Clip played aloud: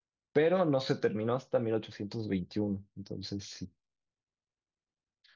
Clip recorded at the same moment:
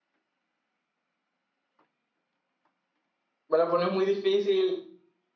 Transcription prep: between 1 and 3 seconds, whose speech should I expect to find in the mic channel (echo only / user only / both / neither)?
neither